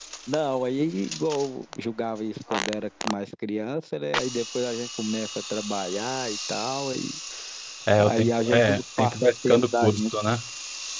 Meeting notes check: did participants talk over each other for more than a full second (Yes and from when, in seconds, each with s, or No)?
Yes, from 8.0 s